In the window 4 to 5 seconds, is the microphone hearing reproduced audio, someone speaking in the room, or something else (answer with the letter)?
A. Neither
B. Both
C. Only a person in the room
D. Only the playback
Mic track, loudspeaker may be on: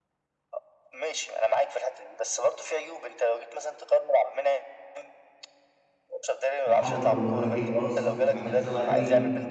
D